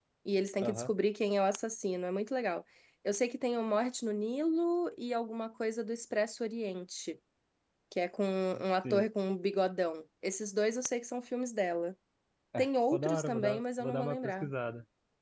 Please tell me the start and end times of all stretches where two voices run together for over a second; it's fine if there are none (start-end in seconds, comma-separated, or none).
12.6-14.5